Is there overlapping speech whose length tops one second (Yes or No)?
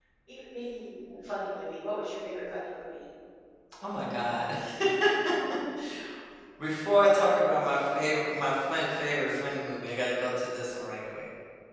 No